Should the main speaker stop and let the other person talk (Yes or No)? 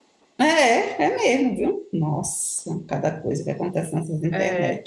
Yes